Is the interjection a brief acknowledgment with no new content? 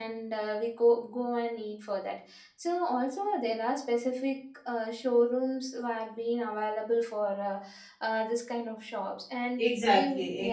No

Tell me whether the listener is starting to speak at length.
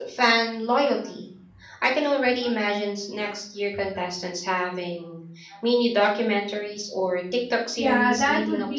Yes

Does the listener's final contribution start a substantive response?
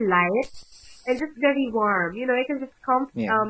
No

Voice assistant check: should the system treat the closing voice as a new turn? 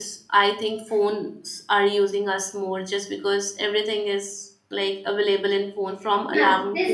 Yes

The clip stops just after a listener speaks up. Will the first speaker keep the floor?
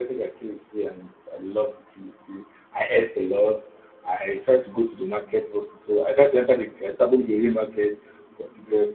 Yes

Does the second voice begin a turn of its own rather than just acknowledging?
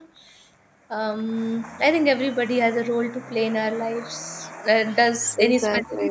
No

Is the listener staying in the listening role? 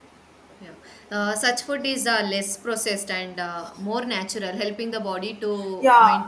No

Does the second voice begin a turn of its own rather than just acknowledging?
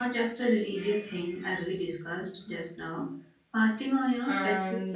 Yes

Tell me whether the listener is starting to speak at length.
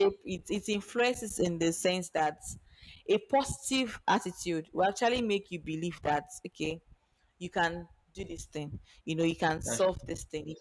No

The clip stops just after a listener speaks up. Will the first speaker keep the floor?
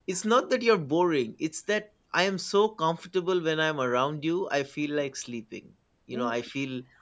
Yes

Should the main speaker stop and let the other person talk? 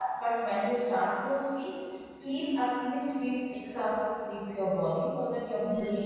Yes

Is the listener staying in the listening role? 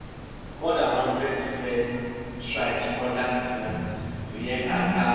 Yes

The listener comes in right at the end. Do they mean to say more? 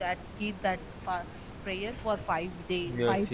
Yes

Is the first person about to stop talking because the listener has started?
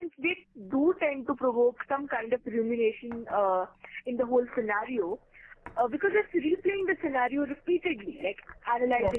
No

